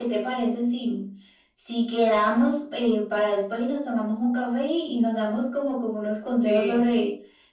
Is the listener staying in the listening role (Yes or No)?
Yes